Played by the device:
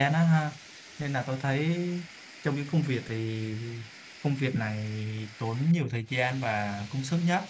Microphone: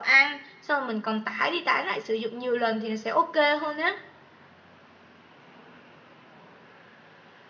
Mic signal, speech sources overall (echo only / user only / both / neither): user only